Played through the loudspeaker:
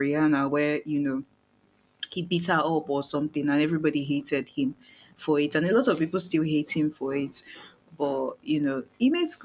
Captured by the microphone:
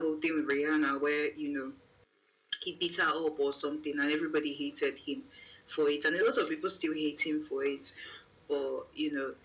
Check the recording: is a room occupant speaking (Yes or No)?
No